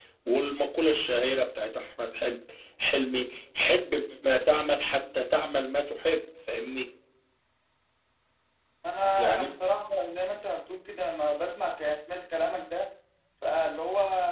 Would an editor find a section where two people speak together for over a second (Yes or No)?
No